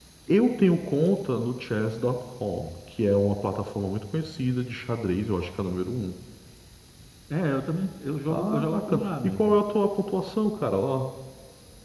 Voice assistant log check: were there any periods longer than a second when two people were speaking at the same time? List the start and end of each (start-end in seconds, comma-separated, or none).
8.3-9.6